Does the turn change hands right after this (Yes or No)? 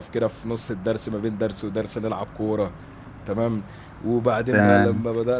No